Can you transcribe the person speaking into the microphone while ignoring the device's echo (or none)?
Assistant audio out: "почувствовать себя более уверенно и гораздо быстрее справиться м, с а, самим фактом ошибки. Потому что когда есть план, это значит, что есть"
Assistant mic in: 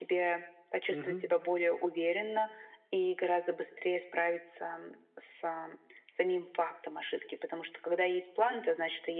Мгм.